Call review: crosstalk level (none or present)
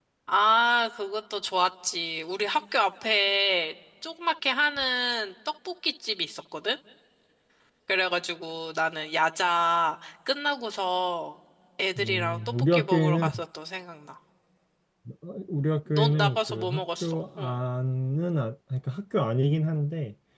present